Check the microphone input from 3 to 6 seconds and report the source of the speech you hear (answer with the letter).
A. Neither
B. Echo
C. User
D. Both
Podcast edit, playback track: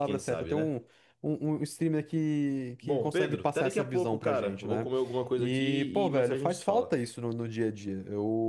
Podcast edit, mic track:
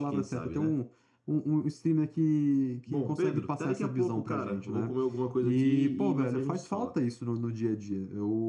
B